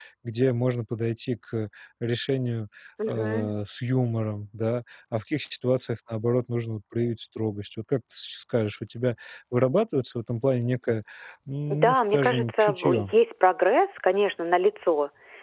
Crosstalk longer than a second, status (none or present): present